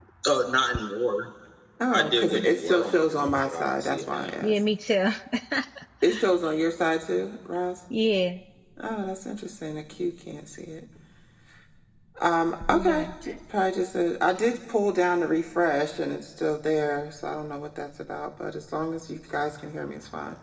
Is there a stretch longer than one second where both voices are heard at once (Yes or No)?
Yes